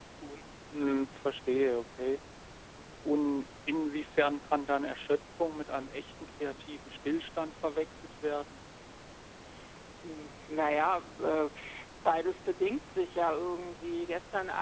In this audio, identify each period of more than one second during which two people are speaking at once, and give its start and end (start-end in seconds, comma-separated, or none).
none